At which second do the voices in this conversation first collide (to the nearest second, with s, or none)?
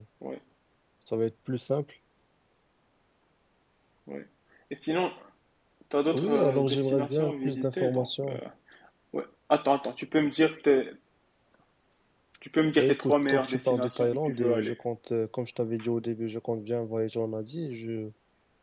6 s